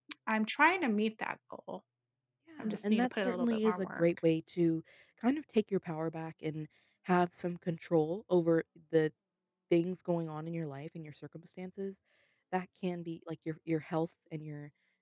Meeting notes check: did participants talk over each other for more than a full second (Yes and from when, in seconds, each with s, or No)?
Yes, from 2.6 s